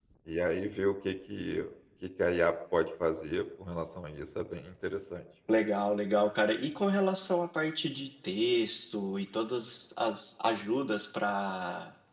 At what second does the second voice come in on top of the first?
none

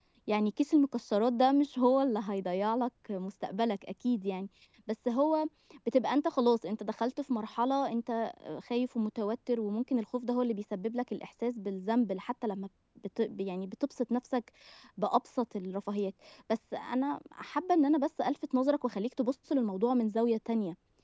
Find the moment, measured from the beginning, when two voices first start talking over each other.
none

